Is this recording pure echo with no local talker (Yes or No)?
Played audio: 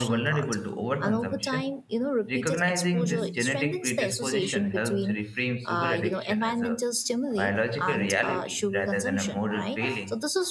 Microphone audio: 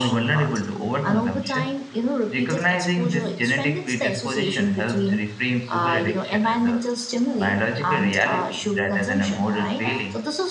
Yes